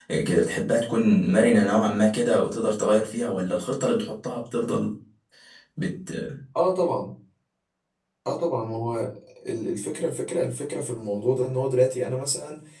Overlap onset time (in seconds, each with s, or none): none